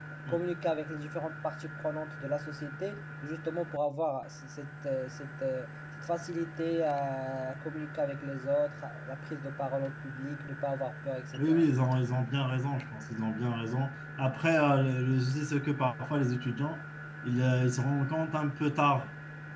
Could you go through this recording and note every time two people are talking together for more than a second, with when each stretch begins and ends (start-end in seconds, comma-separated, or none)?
none